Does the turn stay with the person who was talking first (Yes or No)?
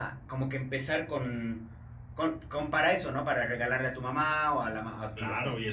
No